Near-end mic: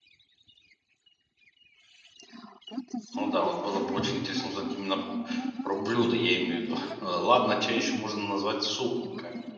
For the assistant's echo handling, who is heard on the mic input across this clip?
both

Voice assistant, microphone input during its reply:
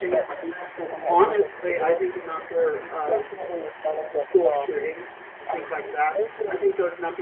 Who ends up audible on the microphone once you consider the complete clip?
both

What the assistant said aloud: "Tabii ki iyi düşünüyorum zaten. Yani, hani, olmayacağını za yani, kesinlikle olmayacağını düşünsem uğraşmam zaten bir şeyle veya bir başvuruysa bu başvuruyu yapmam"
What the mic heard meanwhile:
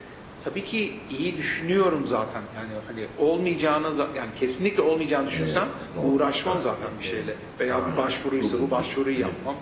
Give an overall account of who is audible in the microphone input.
both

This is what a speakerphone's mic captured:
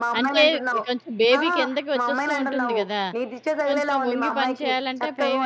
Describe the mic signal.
both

